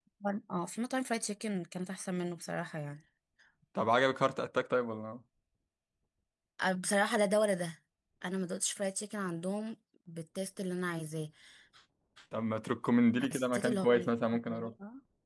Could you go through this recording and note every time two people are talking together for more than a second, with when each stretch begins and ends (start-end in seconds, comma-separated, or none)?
13.2-14.7